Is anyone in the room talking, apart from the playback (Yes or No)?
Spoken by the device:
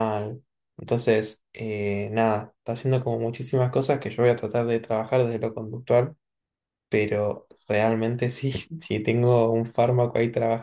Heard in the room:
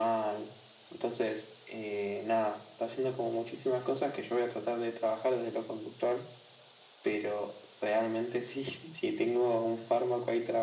No